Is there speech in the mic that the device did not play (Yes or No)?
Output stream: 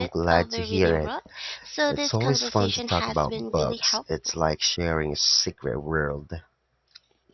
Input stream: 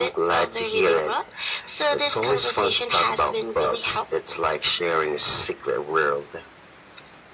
No